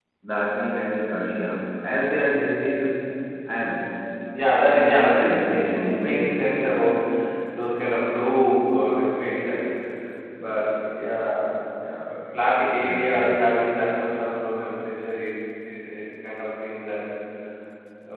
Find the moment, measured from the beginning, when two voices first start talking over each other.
4.7 s

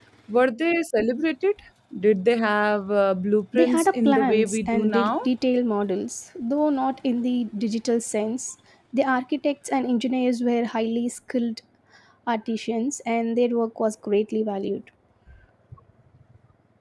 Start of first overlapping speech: 3.5 s

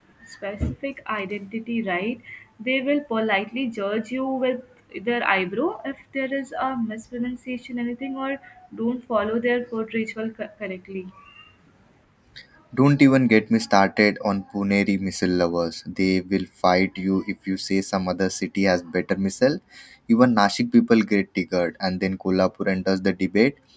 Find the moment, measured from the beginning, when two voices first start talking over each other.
none

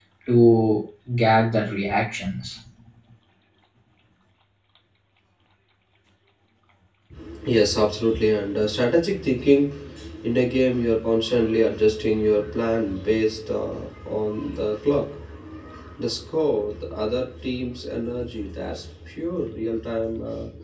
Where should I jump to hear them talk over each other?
none

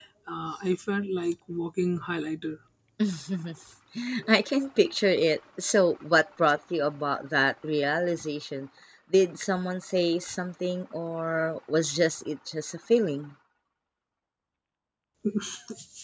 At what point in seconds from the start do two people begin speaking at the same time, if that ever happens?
none

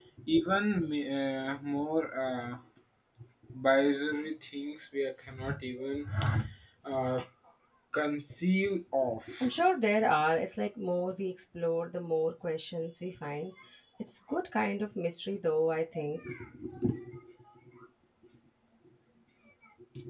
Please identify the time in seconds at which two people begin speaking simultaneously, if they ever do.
none

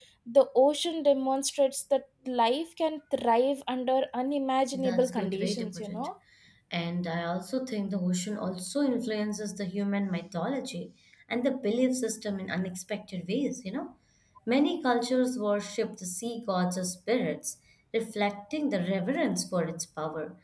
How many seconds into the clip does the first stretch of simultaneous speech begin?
4.7 s

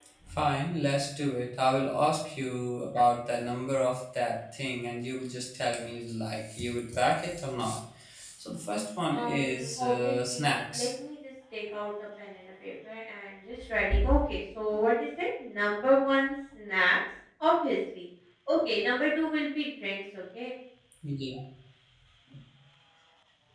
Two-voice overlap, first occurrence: 9.1 s

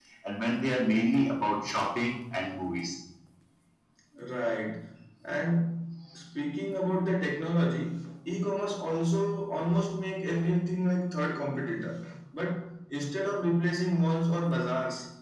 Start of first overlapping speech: none

